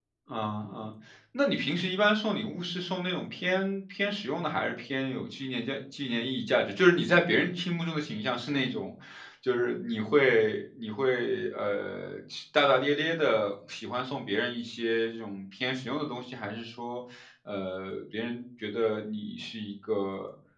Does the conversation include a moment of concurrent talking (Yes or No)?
No